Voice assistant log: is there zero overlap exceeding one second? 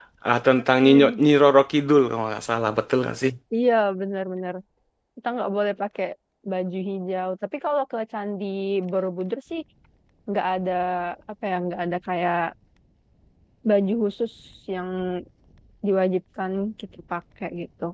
Yes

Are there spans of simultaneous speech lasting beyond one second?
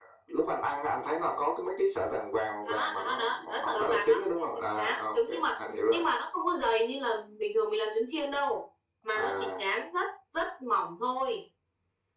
Yes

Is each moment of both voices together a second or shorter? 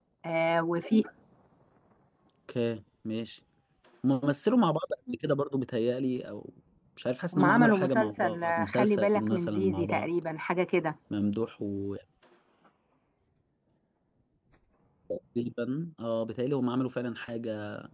No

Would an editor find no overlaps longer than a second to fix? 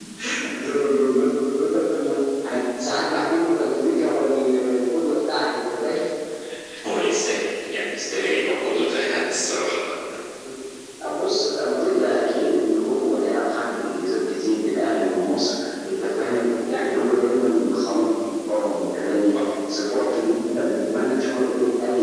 Yes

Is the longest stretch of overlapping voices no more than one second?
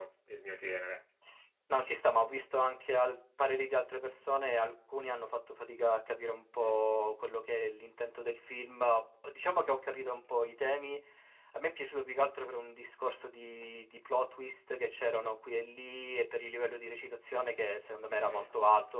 Yes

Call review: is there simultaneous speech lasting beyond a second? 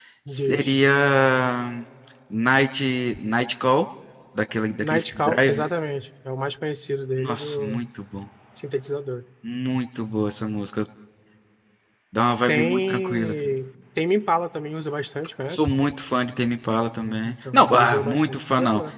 Yes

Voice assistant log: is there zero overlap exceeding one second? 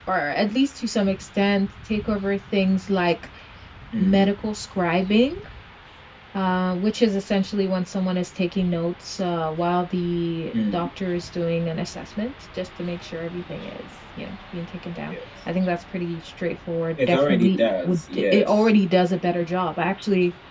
No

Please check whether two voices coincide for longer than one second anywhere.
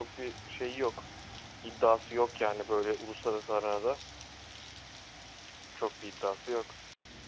No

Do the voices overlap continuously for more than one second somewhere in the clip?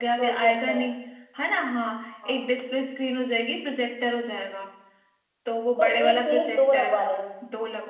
Yes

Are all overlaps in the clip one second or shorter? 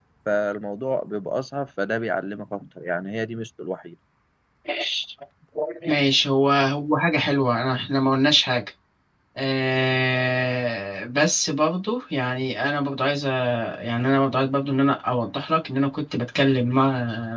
Yes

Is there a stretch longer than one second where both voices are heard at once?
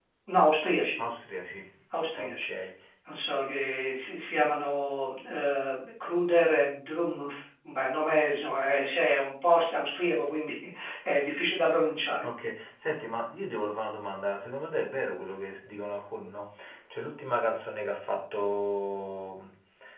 No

